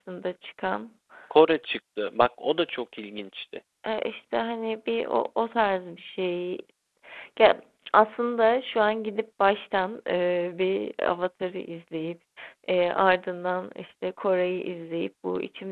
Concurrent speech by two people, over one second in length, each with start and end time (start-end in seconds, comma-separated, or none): none